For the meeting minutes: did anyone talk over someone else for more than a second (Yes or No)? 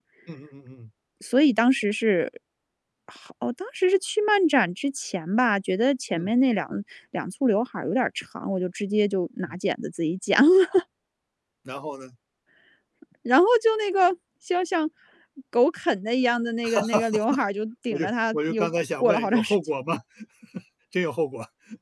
Yes